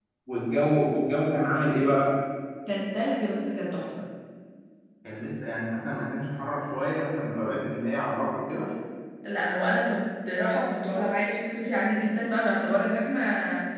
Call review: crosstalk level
none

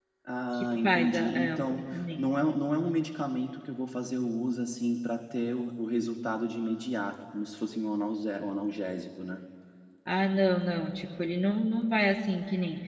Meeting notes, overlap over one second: present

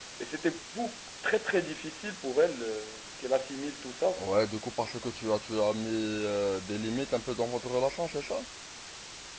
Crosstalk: none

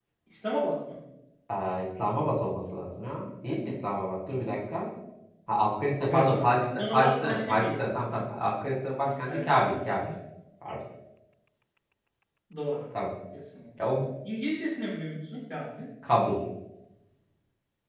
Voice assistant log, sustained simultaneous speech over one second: present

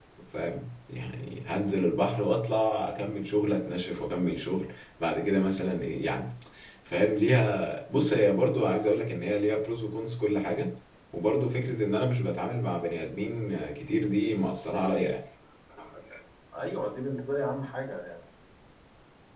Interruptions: none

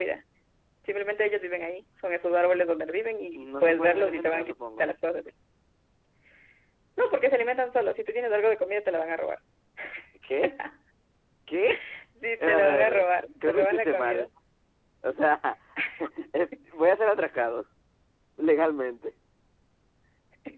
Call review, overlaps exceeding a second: present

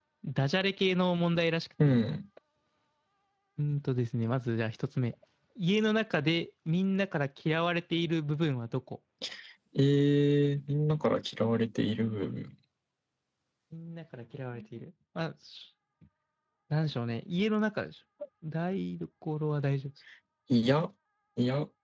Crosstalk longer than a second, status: none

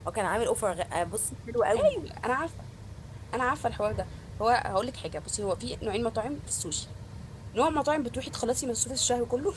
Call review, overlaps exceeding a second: none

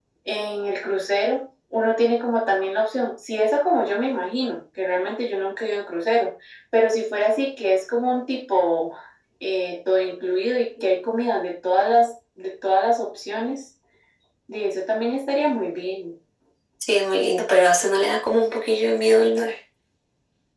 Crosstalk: none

